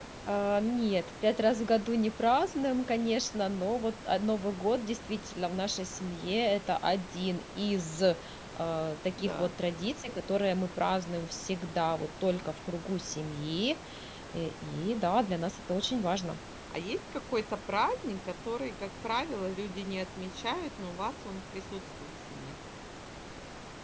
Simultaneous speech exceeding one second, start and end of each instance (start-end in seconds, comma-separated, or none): none